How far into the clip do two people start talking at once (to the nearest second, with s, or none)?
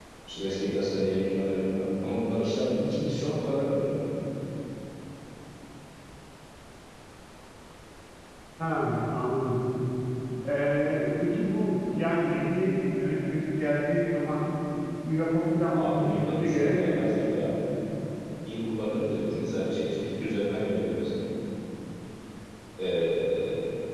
16 s